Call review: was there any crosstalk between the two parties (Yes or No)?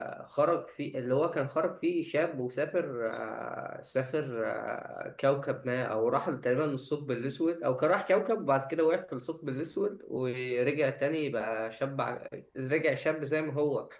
No